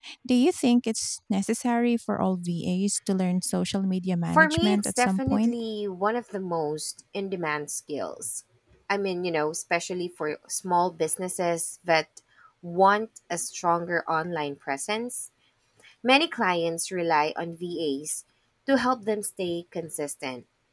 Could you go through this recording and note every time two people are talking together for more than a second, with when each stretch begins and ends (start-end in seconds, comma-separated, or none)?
4.3-5.5